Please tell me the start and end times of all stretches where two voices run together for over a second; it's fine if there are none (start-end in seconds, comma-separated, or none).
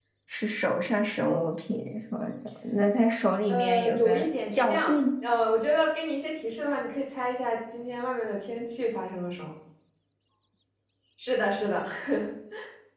3.5-5.0